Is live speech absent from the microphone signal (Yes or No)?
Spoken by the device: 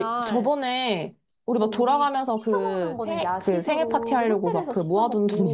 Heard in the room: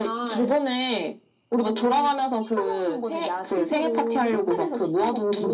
Yes